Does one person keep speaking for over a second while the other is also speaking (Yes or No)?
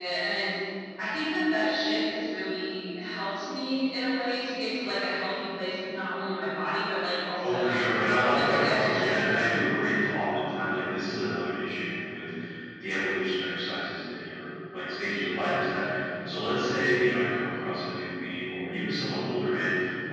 Yes